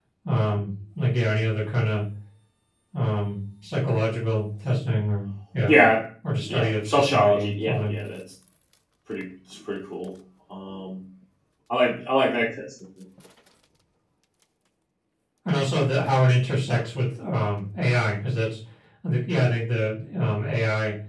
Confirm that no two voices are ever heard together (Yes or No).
No